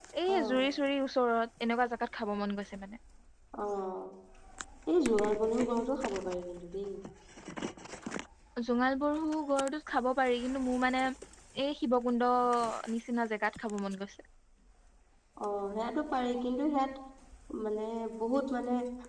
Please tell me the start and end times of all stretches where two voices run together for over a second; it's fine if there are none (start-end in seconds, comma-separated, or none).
none